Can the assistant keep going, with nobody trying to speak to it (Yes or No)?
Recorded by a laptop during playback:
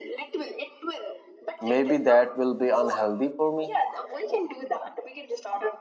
No